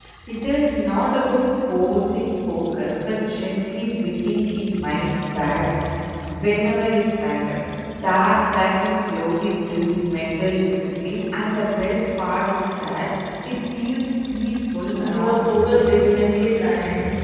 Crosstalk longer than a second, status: present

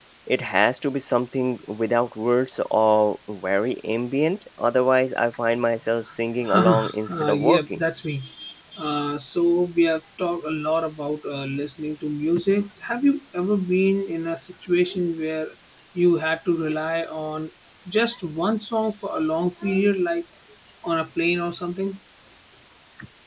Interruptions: present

